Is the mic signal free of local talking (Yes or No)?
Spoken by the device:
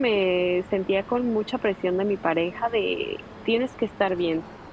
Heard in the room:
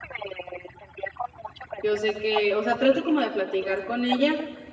No